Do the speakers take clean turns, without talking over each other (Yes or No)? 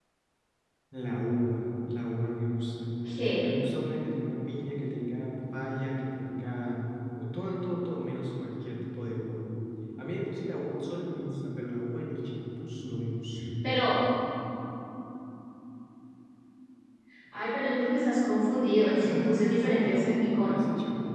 No